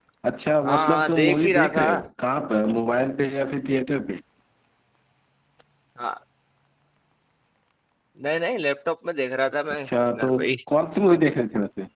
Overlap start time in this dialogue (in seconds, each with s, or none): 0.7 s